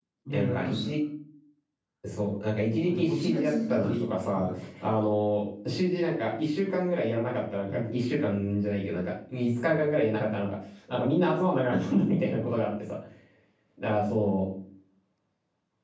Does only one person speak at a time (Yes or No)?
No